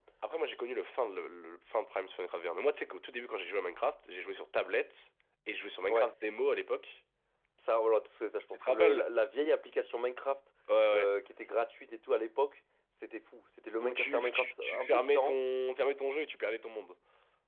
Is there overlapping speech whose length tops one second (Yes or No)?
Yes